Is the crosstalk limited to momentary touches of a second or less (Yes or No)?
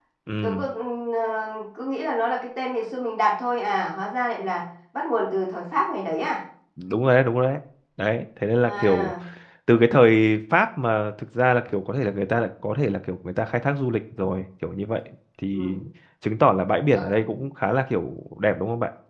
Yes